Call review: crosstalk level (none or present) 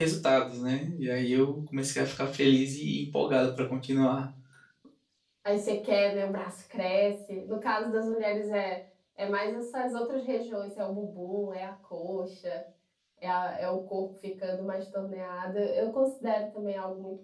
none